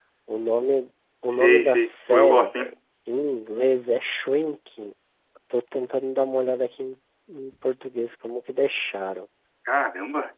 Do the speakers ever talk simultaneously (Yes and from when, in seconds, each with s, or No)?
Yes, from 1.3 s